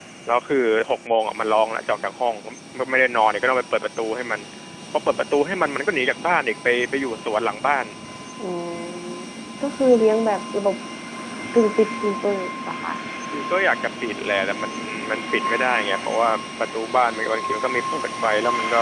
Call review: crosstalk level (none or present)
none